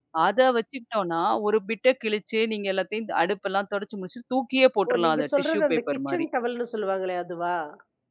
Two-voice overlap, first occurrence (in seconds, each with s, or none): 4.9 s